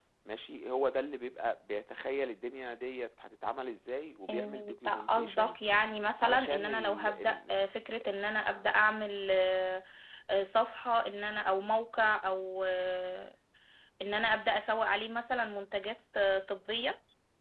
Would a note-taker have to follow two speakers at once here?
Yes, from 4.3 s

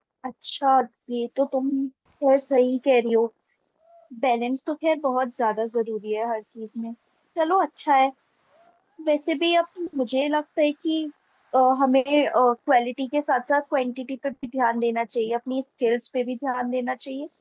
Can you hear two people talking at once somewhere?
No

